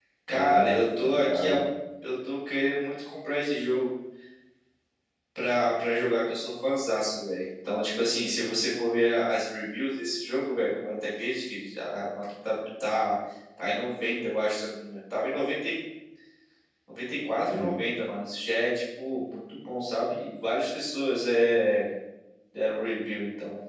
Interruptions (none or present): present